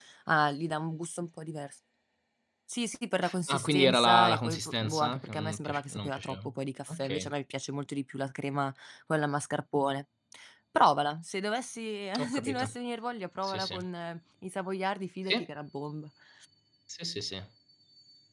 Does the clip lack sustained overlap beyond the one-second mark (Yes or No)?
No